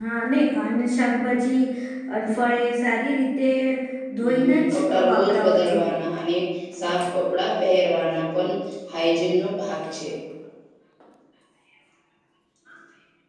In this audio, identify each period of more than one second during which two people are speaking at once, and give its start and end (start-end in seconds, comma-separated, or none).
4.2-6.0